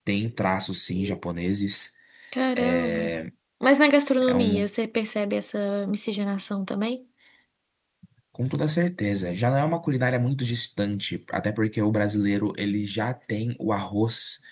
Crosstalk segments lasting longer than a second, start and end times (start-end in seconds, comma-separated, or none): none